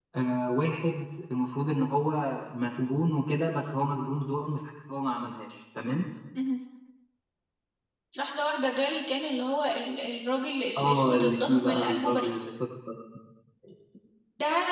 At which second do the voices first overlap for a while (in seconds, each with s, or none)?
10.8 s